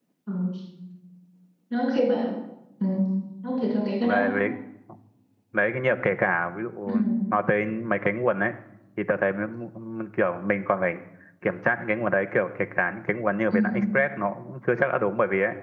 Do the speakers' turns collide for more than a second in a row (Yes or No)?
No